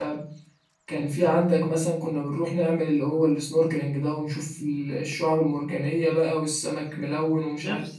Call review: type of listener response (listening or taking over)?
taking over